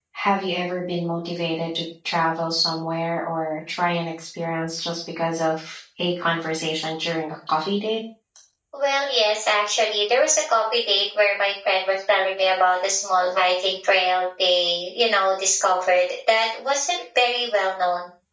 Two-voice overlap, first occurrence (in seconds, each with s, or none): none